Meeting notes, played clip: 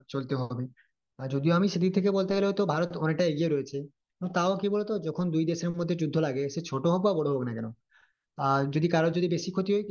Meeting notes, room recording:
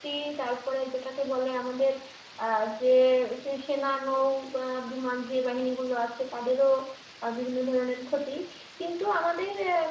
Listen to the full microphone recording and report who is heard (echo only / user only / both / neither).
user only